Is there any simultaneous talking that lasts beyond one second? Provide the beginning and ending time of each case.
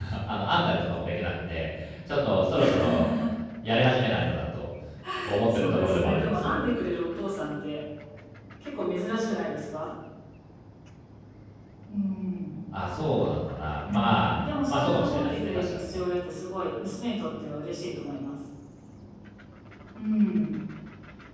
5.2-6.8, 13.8-16.0

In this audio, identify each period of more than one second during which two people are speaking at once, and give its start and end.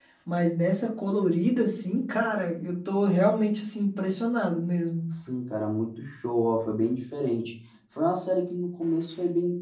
none

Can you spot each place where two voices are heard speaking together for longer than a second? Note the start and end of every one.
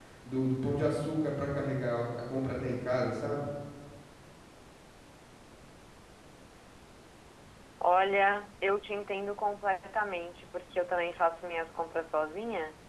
none

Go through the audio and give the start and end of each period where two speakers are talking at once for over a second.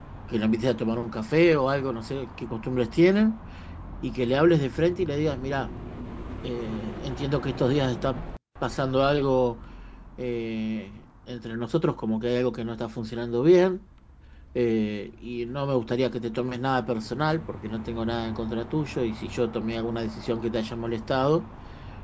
none

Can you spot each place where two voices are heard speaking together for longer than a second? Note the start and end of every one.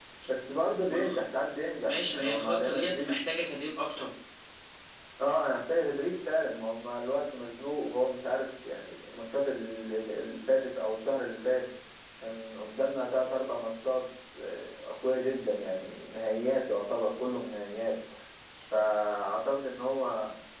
1.9-3.1

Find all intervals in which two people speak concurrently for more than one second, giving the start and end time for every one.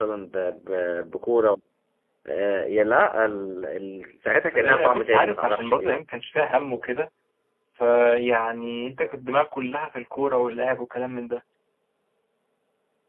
4.5-6.0

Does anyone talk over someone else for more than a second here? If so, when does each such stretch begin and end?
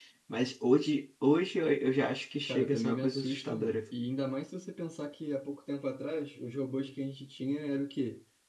2.5-3.7

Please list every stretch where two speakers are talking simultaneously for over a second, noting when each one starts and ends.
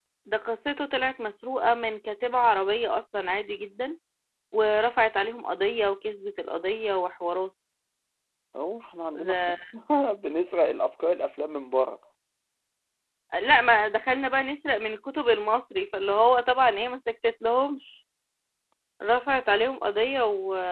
none

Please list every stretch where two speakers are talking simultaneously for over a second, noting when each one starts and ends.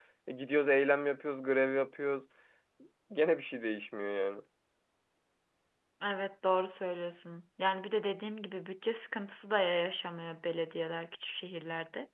none

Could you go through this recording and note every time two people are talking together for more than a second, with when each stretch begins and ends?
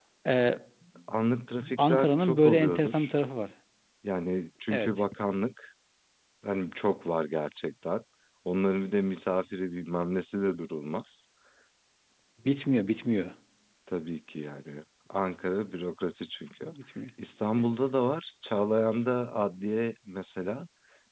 1.8-3.1

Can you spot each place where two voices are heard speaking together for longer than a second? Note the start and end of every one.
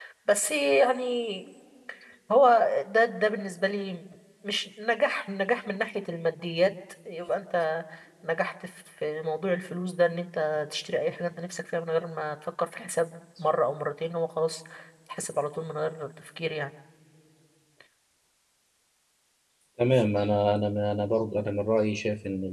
none

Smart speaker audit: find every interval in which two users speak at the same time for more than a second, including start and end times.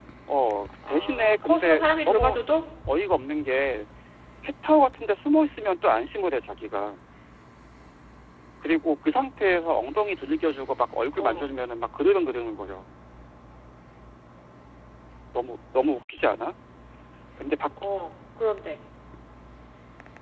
0.9-2.4

